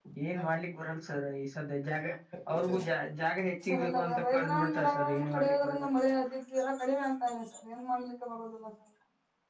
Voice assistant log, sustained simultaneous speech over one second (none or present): present